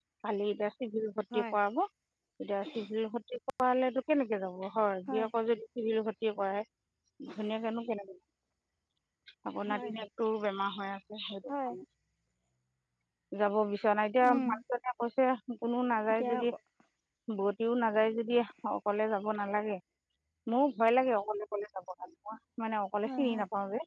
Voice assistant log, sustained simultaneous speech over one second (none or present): none